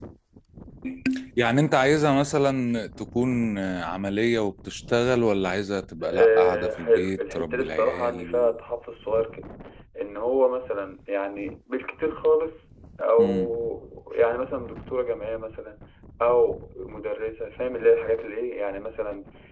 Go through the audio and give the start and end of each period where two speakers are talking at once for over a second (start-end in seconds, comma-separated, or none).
6.0-8.6